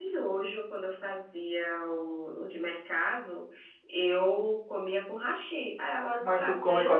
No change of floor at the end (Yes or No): No